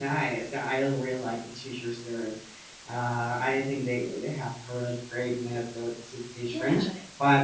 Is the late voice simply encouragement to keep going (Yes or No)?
Yes